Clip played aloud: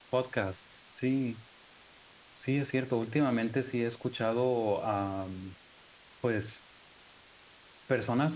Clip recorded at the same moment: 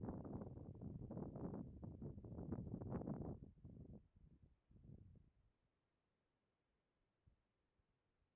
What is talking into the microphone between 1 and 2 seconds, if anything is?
neither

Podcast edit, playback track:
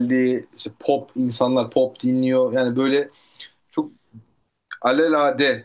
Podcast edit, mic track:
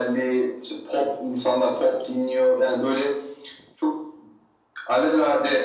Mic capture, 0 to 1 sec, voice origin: echo only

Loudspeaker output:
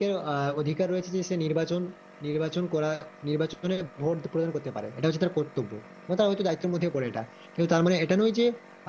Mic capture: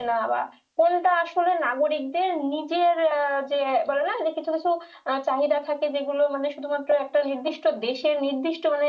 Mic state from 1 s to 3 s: user only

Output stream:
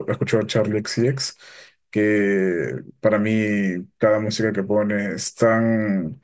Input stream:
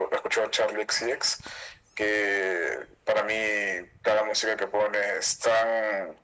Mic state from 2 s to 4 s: echo only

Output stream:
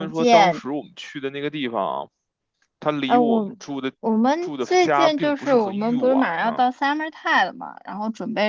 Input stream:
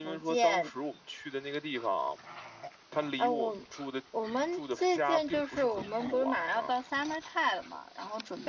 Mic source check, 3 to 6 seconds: echo only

